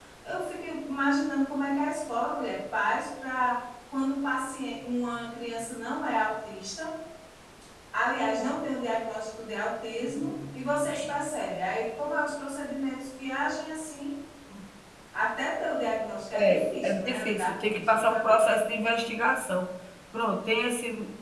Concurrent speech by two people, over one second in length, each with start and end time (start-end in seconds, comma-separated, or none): 16.8-19.1